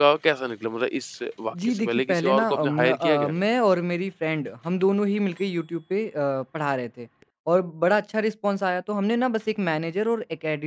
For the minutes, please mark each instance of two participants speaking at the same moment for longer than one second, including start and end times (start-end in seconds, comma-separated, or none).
1.6-3.4